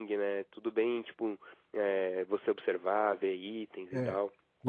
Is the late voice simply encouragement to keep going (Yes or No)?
No